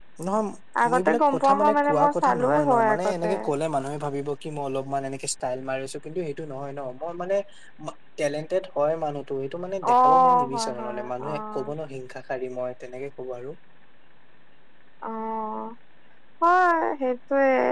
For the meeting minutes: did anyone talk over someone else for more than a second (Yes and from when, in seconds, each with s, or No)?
Yes, from 0.9 s